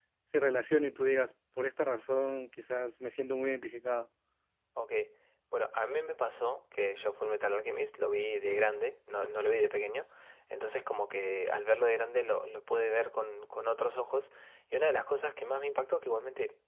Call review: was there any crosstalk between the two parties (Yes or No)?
No